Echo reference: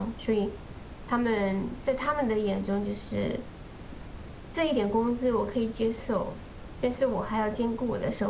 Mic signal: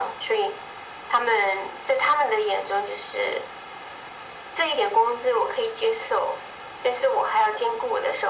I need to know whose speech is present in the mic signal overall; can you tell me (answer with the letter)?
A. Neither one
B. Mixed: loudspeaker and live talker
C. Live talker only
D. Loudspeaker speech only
D